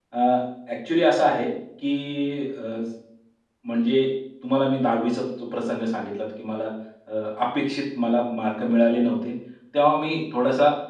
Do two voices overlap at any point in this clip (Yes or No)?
No